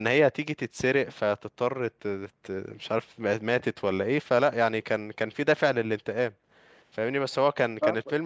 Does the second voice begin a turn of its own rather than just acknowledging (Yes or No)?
No